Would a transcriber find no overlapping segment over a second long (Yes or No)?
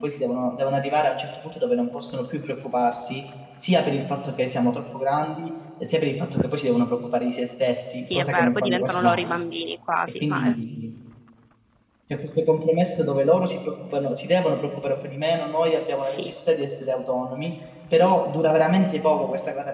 No